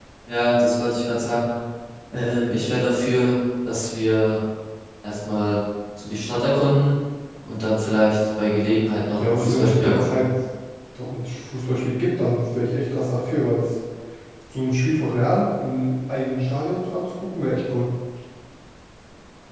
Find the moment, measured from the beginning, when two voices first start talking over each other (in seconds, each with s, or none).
9.0 s